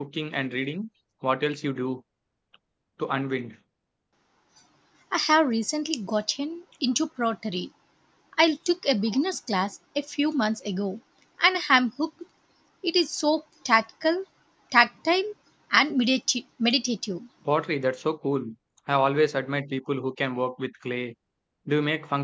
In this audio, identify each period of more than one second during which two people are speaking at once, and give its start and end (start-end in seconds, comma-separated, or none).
none